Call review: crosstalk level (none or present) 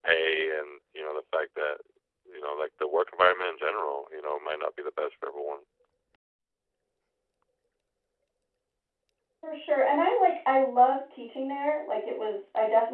none